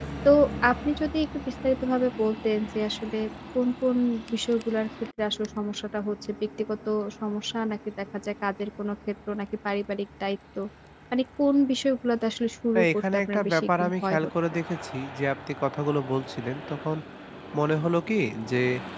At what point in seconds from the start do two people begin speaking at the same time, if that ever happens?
13 s

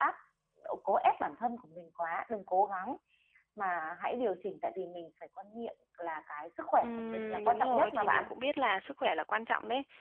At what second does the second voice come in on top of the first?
7 s

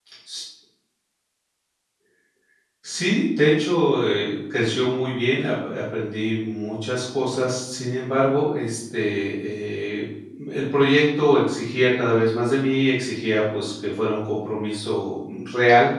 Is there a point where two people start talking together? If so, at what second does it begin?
none

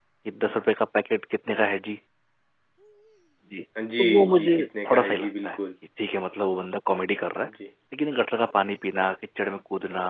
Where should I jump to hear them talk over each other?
4 s

